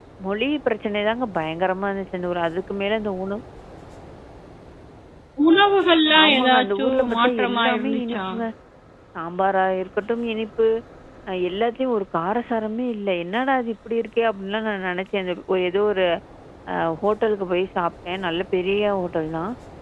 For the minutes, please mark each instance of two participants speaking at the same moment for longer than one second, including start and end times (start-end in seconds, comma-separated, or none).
6.2-8.2